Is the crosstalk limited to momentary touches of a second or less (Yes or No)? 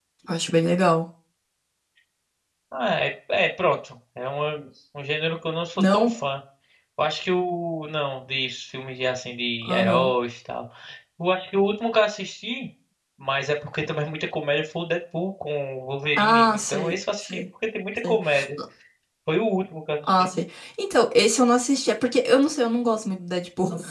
No